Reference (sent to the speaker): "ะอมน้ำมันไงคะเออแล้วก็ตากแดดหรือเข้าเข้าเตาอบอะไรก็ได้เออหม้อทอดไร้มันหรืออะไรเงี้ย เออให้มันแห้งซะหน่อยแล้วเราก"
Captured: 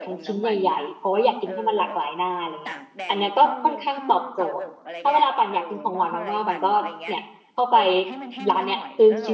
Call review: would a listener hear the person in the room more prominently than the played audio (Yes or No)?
Yes